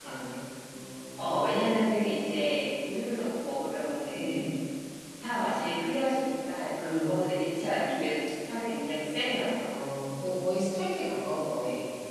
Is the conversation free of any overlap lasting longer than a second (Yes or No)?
Yes